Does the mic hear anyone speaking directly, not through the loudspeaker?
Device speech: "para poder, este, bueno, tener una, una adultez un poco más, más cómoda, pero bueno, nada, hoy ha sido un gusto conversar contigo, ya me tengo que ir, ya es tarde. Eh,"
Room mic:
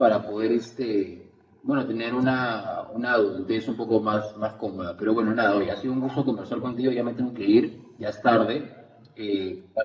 No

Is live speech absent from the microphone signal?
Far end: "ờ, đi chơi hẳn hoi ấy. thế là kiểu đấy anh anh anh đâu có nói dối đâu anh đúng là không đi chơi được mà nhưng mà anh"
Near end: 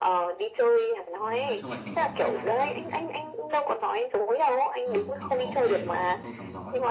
No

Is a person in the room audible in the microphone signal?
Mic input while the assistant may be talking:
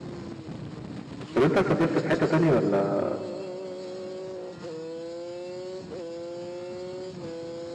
Yes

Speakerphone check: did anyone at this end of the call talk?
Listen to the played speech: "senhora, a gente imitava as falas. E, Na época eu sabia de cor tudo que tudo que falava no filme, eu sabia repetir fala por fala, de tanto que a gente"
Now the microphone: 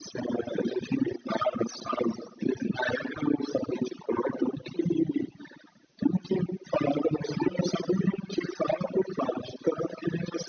No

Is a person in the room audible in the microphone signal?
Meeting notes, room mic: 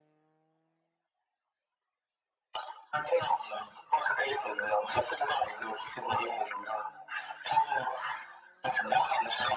No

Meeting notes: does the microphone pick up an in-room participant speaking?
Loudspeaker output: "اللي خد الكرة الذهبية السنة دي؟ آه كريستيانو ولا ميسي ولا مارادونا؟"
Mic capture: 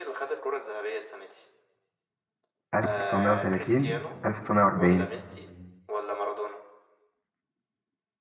Yes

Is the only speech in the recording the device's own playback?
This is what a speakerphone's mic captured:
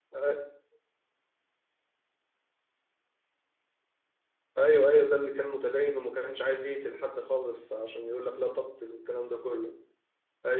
No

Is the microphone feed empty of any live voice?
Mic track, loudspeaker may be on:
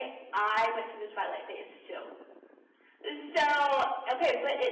Yes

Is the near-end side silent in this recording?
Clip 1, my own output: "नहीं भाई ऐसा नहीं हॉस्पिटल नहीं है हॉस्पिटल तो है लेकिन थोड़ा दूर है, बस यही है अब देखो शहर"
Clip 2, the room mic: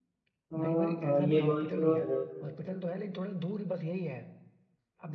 No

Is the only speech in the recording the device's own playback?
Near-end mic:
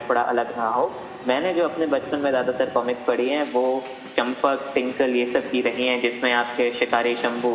Yes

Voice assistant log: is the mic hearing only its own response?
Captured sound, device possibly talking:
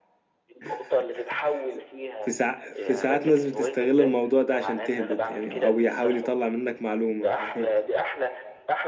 No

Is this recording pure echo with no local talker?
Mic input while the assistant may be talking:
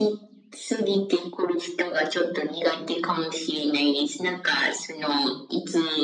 Yes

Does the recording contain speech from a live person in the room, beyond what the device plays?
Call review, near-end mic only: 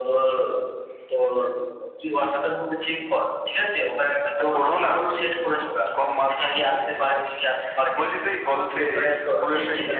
No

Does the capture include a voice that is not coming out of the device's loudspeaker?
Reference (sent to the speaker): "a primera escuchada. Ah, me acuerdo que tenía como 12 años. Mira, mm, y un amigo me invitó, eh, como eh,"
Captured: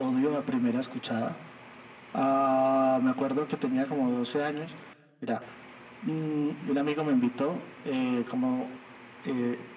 No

